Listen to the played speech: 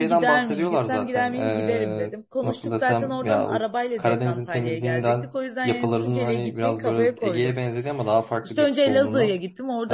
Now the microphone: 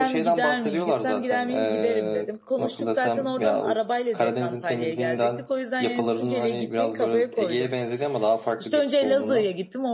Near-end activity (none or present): none